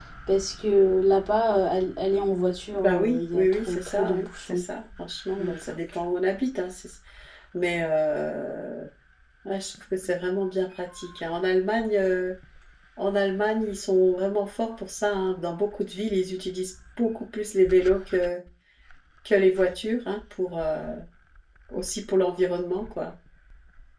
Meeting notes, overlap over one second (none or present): present